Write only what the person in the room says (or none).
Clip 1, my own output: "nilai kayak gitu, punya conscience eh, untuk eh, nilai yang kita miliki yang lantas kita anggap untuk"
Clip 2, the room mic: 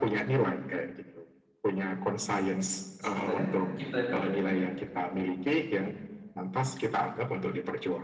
sebenarnya kita itu